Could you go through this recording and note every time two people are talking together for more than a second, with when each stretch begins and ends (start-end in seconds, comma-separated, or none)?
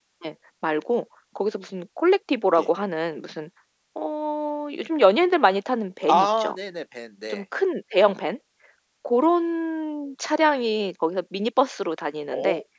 none